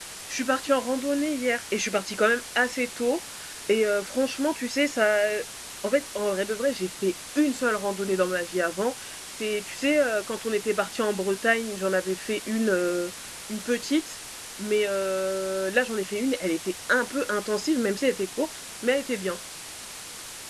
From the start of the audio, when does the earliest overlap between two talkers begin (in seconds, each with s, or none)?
none